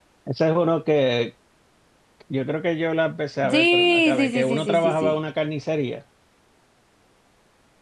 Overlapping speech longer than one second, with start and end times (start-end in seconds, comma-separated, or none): 3.5-5.2